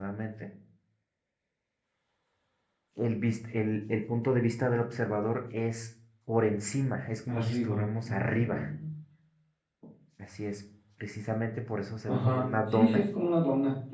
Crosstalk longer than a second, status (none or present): present